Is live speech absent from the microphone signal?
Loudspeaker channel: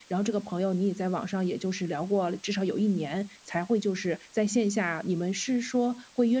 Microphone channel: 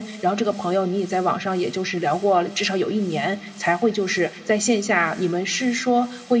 Yes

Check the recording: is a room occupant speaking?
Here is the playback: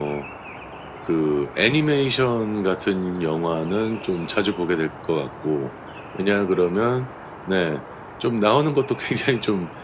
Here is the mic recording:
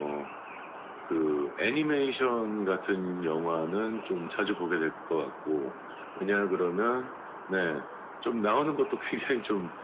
No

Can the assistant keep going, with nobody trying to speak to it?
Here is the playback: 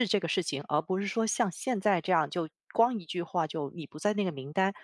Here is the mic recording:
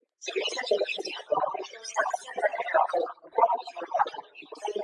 Yes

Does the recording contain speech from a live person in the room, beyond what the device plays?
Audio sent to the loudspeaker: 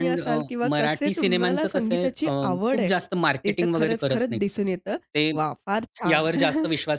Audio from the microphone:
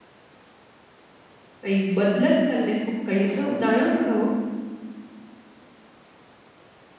Yes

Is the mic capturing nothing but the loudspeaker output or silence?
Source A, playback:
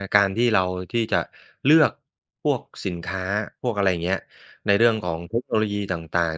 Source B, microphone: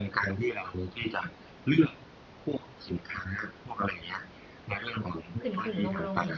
No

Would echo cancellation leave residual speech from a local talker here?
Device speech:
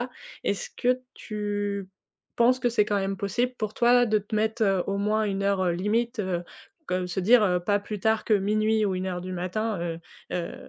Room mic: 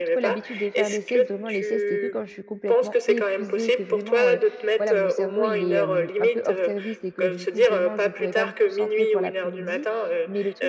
Yes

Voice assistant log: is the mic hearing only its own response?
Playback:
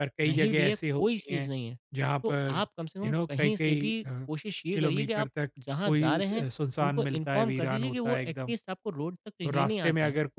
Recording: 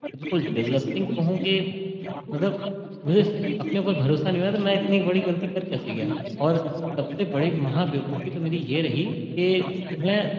No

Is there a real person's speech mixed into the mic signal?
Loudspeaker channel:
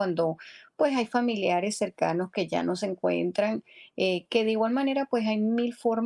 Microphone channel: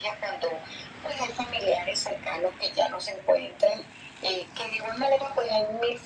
No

